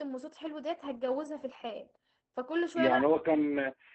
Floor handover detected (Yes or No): Yes